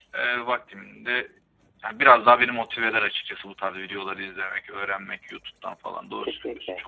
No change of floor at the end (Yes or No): No